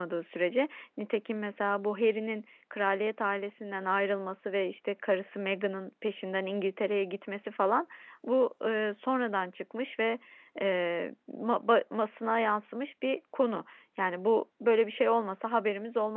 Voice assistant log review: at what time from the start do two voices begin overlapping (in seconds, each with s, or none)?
none